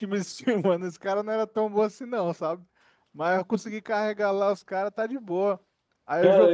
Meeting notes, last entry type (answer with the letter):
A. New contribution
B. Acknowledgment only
A